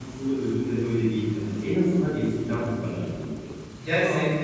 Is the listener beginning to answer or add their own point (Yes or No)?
Yes